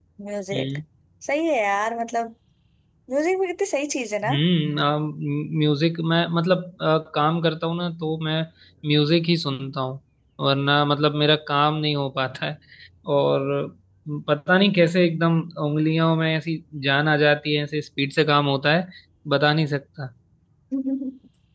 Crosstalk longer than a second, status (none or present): none